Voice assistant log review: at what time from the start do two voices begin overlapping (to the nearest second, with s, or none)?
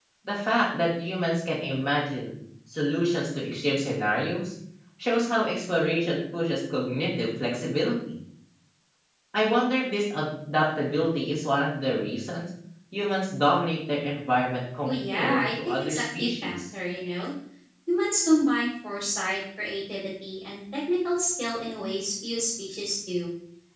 15 s